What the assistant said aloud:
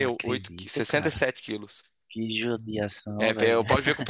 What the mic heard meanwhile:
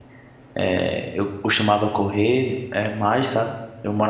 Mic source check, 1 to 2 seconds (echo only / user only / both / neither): user only